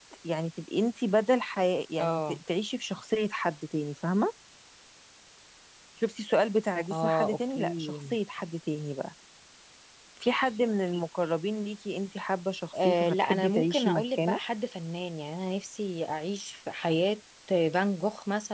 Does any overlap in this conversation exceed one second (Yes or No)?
Yes